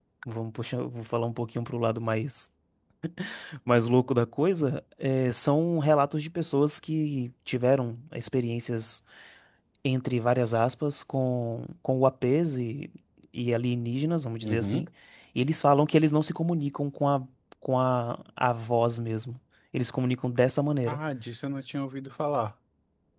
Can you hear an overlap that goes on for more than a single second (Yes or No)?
No